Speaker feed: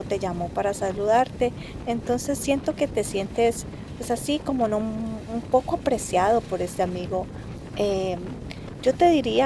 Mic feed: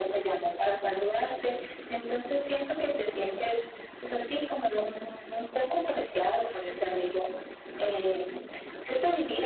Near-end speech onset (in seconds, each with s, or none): none